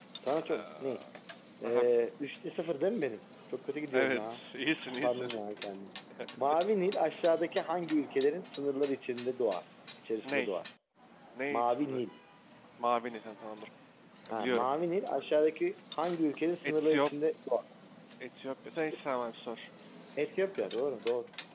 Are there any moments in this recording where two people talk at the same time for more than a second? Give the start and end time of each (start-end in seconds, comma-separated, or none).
none